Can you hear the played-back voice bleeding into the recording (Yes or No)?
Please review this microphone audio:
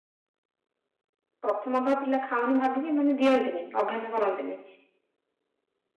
No